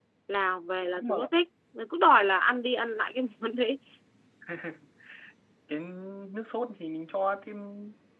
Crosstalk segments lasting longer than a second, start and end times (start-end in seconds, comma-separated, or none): none